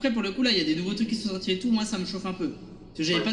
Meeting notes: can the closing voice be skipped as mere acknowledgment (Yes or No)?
Yes